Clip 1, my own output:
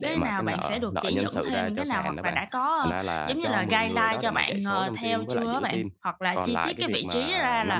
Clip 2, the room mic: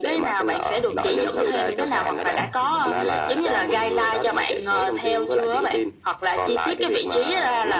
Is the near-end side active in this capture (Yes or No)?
Yes